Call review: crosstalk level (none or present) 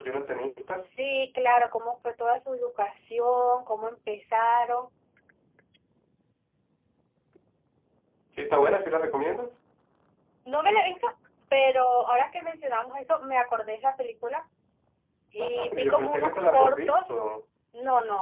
present